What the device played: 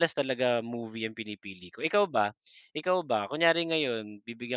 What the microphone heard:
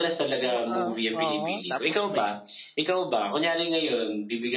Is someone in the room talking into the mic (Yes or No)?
Yes